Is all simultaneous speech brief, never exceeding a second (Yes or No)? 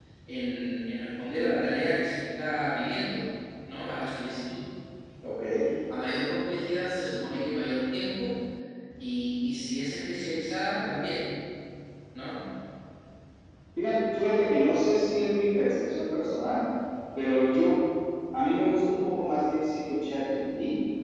Yes